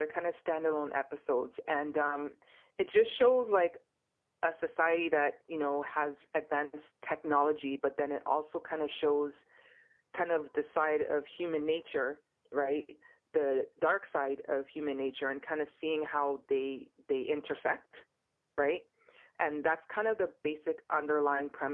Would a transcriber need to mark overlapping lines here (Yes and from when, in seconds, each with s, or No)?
No